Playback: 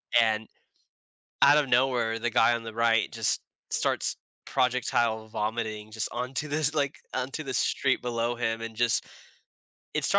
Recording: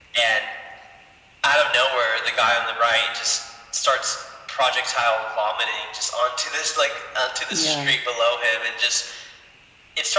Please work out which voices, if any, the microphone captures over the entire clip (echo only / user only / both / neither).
both